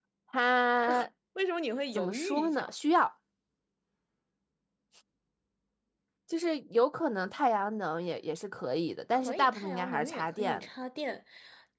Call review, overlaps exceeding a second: present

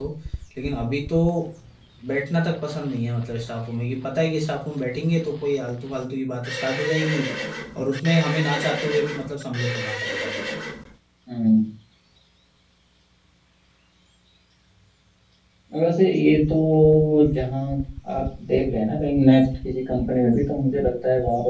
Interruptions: none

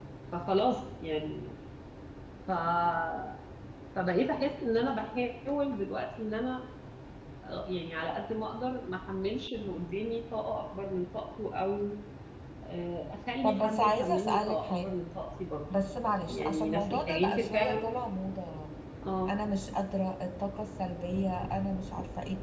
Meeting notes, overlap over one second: present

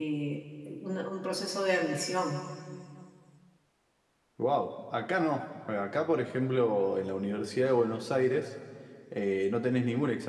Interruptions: none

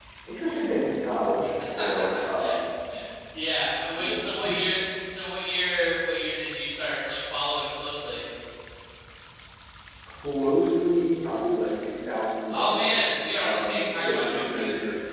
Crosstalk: present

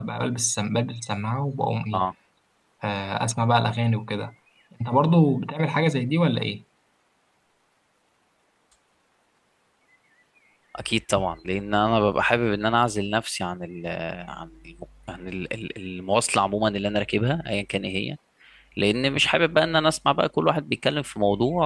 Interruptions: none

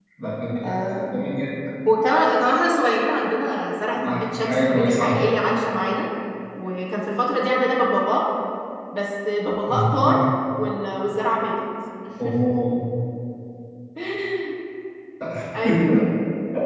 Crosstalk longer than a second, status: present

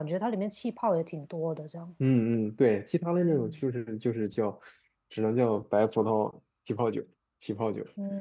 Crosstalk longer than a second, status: none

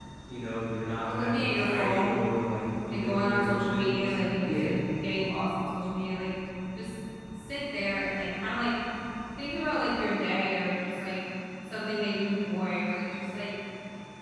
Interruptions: present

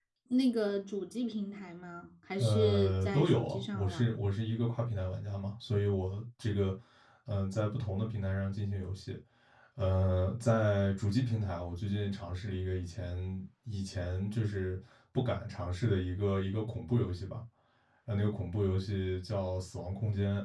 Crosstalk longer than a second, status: present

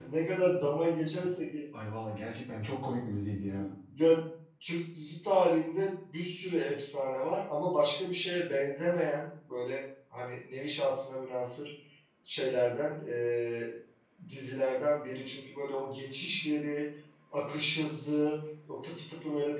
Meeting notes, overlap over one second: none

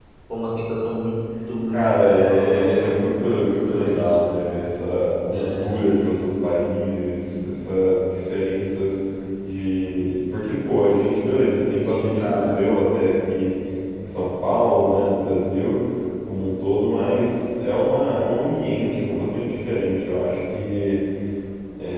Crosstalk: present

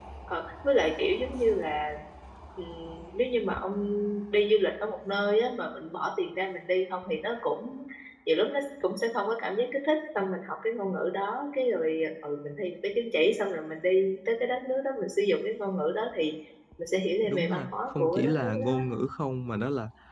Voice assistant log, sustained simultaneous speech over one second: present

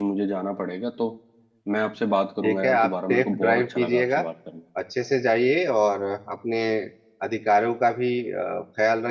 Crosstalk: present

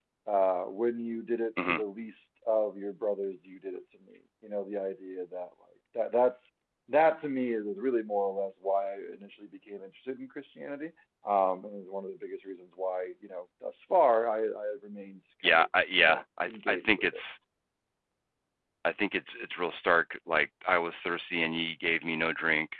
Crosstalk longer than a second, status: present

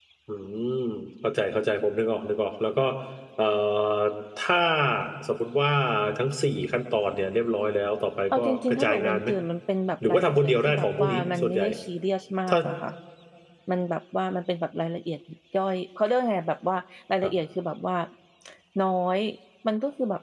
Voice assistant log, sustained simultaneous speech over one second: present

